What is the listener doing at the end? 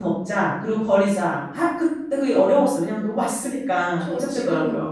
taking over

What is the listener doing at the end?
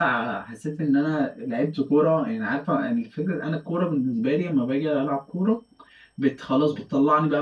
listening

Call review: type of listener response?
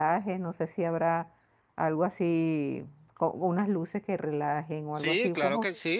taking over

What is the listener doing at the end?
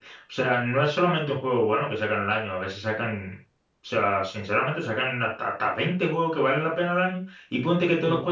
listening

